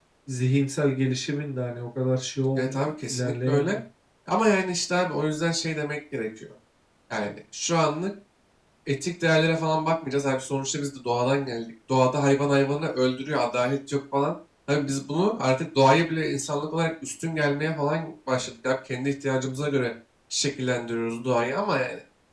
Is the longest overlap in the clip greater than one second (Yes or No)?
Yes